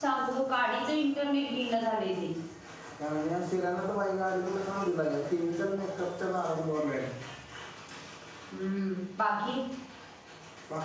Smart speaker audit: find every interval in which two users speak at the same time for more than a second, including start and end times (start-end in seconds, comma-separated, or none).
none